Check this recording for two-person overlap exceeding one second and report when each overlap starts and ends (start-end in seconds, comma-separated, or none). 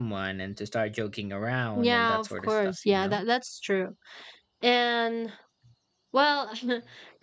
1.8-3.2